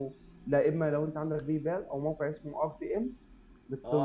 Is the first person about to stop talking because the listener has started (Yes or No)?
Yes